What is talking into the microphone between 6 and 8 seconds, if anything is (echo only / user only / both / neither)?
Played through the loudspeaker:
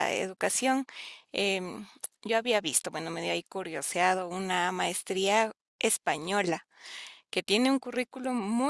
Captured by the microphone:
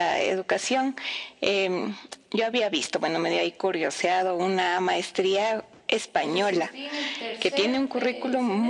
both